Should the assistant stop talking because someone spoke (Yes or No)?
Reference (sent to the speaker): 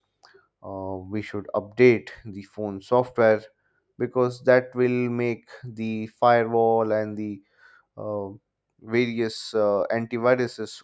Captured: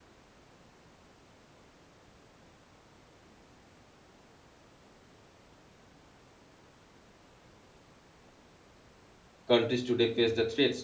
Yes